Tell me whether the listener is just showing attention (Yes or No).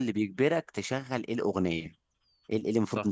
Yes